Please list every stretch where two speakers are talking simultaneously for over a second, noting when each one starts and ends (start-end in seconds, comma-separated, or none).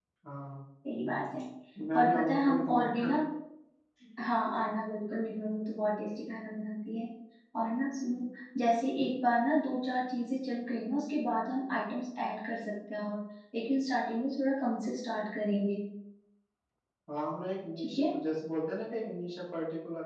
1.9-3.2